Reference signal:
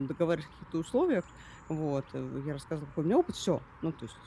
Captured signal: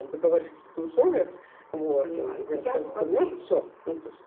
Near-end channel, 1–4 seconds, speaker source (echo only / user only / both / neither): both